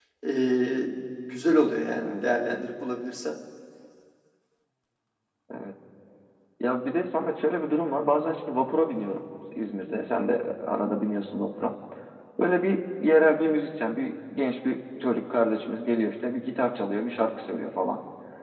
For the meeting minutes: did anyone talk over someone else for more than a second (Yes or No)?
No